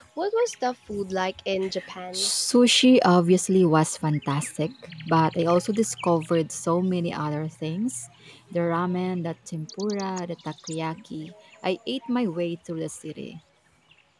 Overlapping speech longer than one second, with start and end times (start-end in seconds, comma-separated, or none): none